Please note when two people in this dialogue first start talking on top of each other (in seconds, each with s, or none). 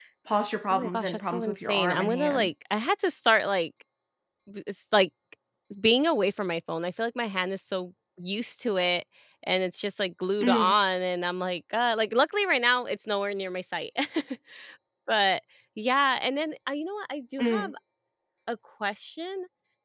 0.7 s